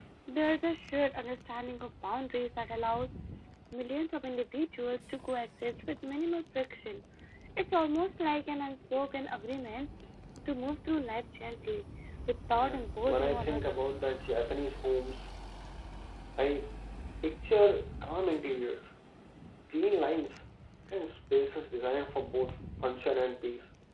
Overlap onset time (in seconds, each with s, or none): 12.5 s